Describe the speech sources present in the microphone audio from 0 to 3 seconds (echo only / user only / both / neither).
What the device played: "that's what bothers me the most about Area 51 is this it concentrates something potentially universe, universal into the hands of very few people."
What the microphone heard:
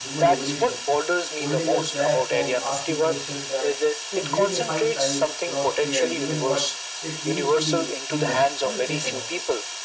both